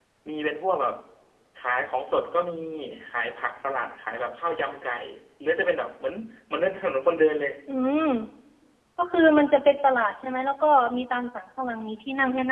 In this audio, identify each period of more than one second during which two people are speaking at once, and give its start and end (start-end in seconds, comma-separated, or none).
none